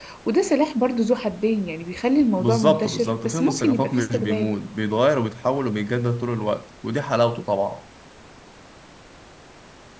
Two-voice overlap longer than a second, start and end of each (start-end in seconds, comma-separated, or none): 2.4-4.5